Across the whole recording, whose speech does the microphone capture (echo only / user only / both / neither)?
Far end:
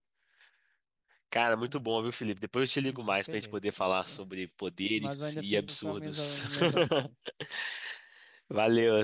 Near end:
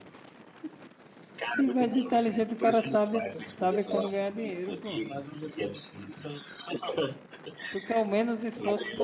both